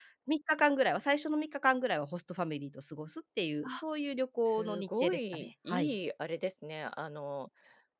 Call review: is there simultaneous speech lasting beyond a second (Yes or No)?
Yes